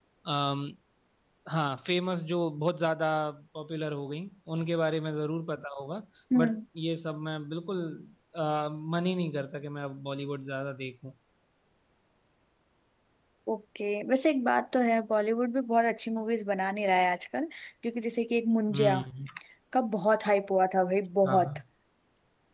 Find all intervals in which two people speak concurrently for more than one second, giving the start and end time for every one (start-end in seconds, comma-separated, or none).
none